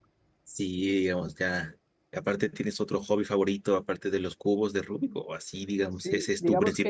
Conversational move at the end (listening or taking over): taking over